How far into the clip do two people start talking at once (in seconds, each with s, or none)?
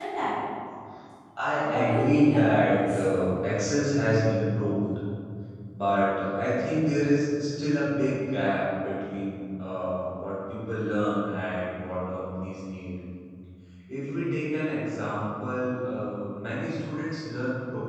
1.6 s